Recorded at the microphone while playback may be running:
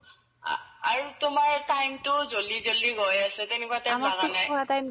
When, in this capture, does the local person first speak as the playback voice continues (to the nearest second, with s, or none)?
4 s